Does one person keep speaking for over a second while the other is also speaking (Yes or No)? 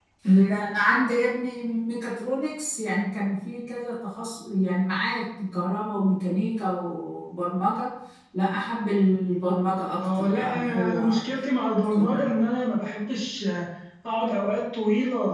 Yes